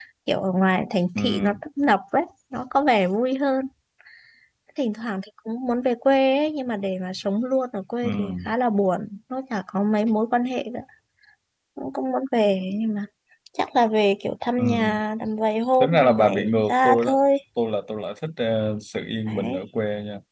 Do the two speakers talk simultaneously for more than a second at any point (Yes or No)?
Yes